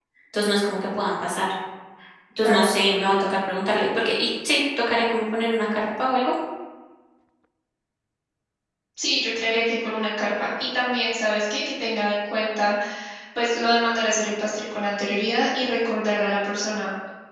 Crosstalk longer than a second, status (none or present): none